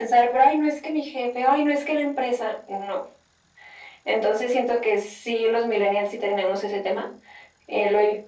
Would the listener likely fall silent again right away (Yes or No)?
Yes